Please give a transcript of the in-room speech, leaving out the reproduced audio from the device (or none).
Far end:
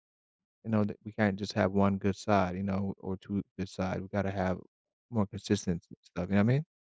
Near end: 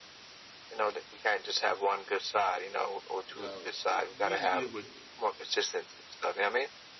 Yeah, we usually eat it with,